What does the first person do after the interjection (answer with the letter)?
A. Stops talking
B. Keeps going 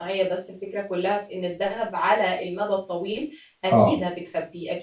B